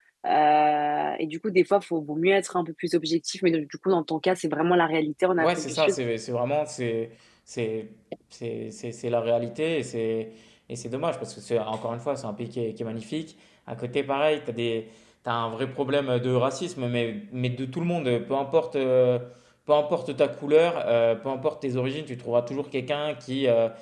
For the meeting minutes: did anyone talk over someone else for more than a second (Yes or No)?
No